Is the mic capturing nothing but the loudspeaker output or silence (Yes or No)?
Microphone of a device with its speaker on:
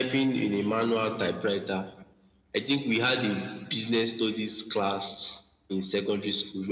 Yes